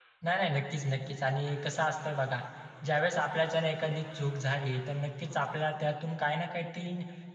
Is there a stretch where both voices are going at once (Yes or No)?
No